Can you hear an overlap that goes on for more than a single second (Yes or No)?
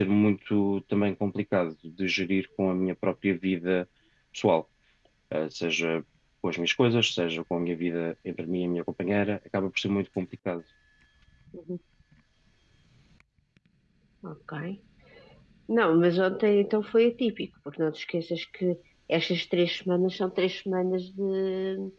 No